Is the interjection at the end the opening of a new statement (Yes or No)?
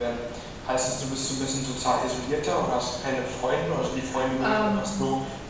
No